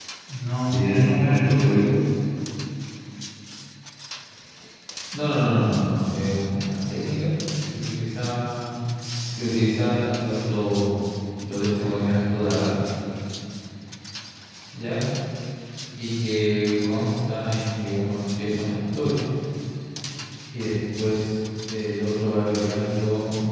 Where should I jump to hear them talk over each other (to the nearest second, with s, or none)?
1 s